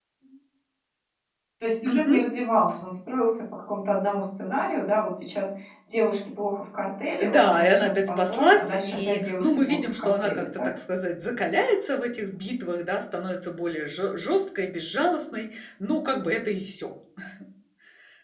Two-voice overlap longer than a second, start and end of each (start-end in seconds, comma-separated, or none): 7.2-10.7